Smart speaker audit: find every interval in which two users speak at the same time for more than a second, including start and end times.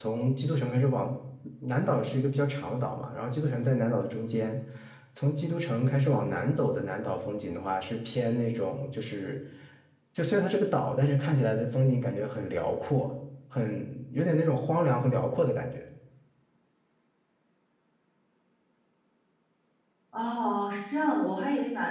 none

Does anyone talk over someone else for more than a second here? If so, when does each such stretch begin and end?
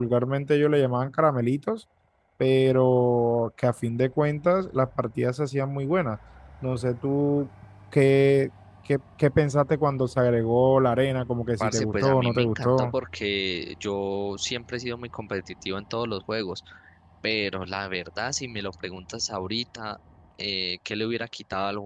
11.6-12.9

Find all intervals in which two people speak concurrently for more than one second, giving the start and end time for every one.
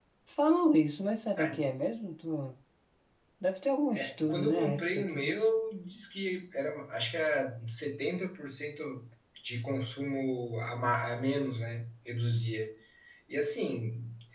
4.0-5.4

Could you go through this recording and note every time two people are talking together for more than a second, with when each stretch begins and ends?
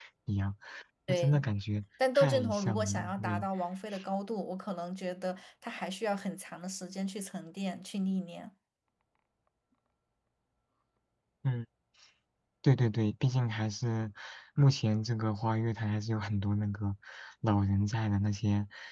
2.1-3.5

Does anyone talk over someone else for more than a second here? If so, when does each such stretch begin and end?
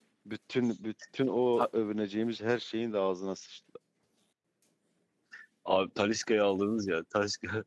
none

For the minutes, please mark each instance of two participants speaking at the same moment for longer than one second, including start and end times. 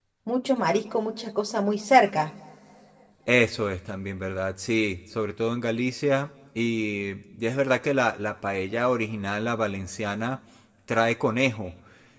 none

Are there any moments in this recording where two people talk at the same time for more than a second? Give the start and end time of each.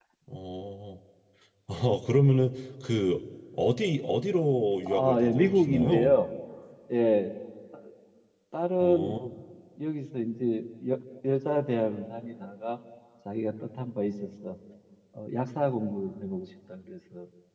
4.9-6.1

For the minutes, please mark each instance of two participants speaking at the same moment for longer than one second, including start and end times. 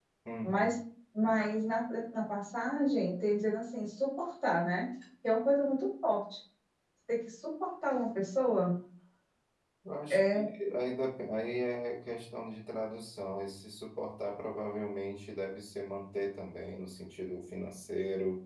none

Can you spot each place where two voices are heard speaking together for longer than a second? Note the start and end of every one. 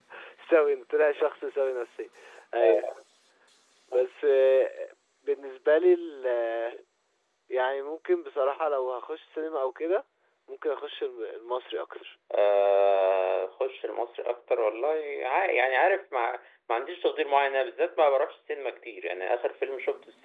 none

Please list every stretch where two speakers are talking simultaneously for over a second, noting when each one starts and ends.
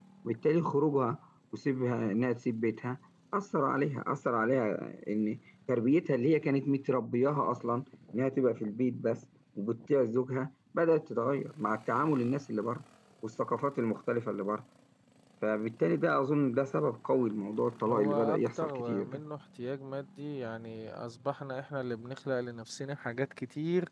17.9-19.2

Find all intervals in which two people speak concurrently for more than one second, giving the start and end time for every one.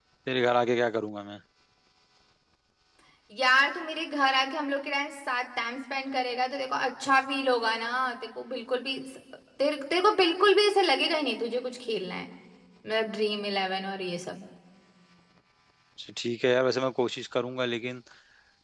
none

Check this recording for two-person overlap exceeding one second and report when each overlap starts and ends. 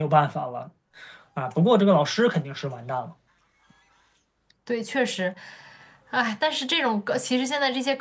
none

